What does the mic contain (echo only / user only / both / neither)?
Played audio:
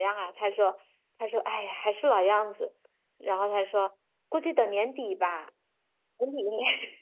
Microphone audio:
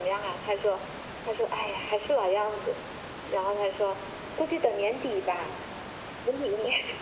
echo only